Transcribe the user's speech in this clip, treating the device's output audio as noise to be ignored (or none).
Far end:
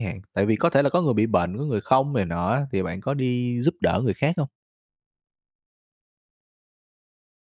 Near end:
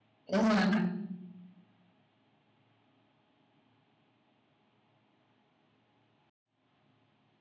Đúng rồi,